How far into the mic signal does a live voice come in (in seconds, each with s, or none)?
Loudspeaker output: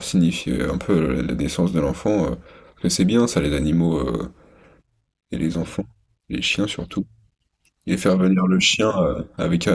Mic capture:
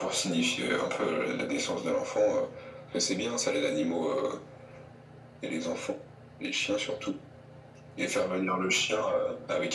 none